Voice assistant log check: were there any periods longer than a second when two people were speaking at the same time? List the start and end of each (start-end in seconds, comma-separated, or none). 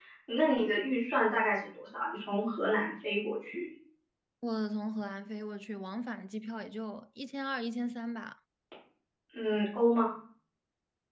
none